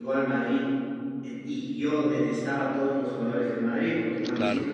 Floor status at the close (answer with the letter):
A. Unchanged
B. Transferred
A